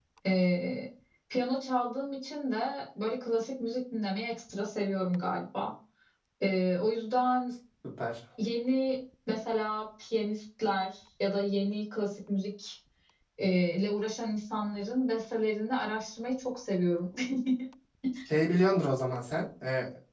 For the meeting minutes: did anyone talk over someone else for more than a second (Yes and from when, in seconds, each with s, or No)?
No